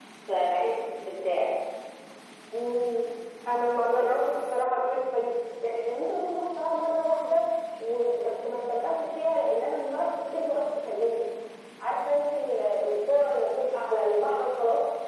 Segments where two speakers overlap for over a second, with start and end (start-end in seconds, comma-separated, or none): none